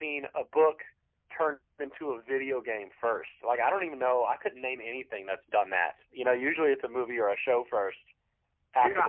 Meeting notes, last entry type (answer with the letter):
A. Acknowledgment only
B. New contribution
B